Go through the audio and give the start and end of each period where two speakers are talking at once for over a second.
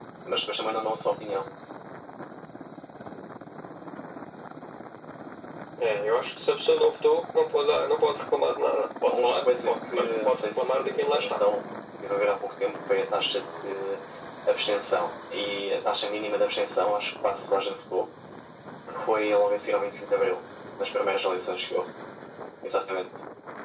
9.1-11.4

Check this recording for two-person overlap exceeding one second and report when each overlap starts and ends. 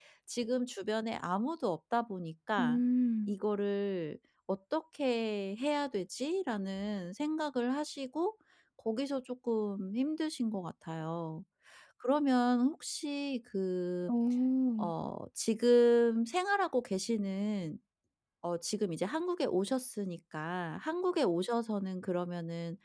none

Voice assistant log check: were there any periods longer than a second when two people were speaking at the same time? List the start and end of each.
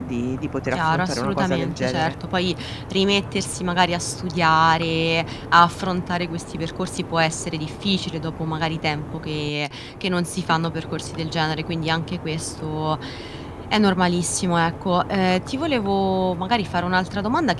0.7-2.1

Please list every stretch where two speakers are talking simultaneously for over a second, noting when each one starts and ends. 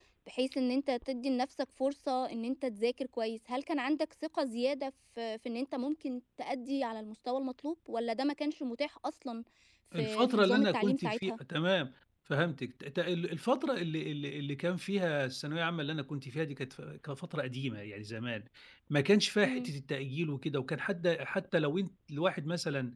10.0-11.3

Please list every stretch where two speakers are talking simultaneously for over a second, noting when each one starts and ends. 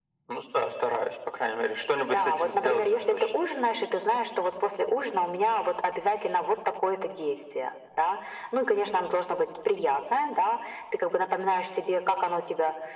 2.0-3.3

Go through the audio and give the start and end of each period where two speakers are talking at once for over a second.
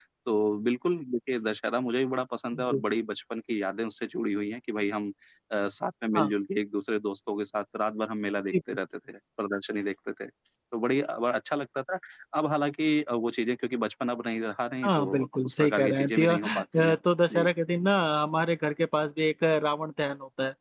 14.8-16.9

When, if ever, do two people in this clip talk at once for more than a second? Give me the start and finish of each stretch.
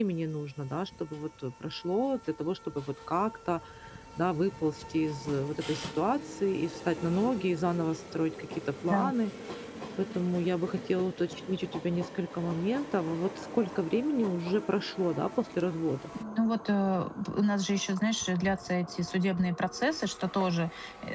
none

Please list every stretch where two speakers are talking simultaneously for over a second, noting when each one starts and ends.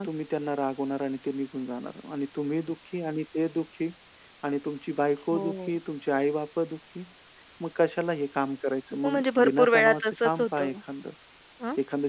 9.0-10.7

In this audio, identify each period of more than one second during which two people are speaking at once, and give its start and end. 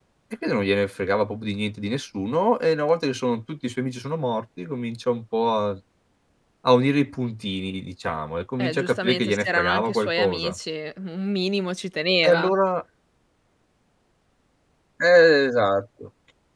8.6-10.6

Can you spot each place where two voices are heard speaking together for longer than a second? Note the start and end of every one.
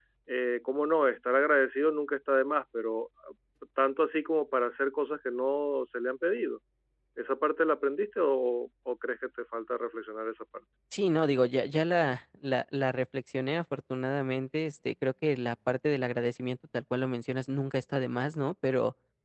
none

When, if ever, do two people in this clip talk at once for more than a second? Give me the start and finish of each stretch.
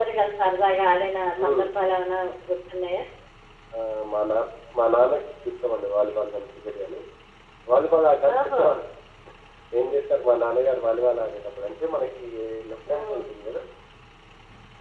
none

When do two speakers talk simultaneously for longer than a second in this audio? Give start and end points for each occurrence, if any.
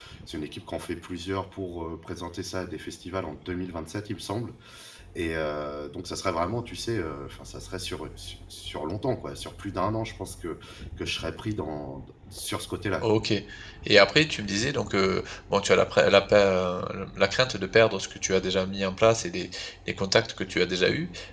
none

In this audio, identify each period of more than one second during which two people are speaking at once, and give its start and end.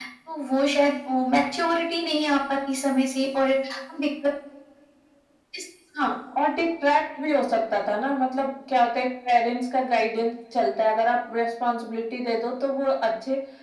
none

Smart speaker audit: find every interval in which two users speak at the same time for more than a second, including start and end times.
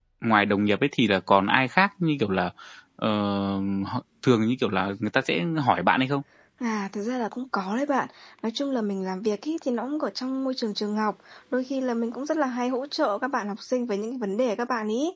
none

